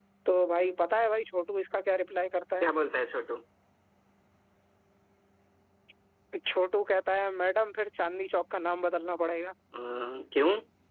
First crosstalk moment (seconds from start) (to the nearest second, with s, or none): none